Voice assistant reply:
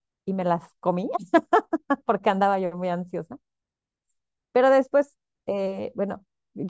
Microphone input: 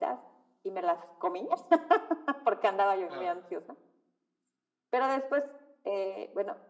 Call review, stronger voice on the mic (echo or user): echo